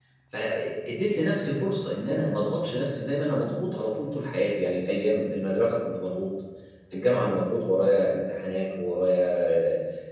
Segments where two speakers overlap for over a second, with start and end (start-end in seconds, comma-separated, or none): none